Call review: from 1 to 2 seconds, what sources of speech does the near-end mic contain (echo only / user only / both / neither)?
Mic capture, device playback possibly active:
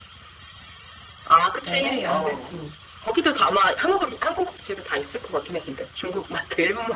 both